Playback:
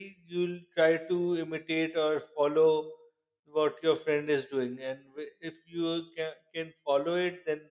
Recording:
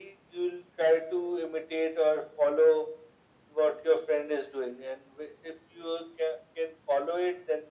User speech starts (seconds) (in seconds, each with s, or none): none